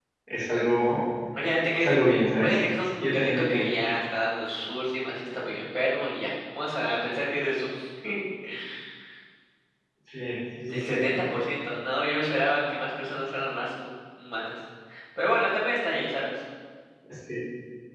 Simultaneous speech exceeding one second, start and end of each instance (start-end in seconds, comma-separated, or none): 2.4-3.7